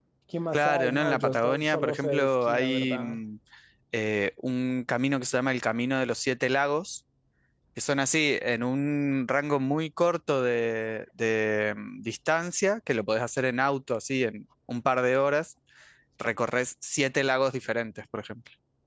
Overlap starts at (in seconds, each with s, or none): 0.5 s